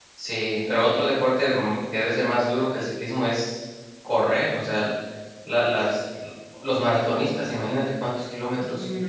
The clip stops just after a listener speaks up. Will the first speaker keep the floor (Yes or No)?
No